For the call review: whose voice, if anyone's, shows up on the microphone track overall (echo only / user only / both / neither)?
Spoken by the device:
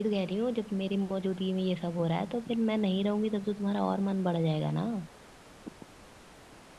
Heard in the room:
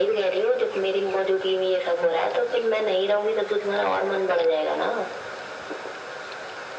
echo only